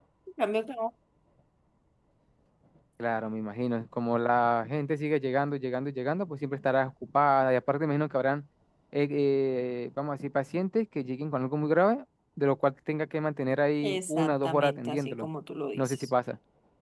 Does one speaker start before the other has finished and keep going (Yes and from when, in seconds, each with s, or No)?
Yes, from 13.8 s